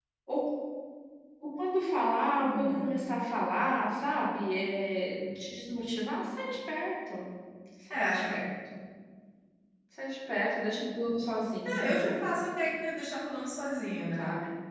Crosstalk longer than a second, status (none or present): none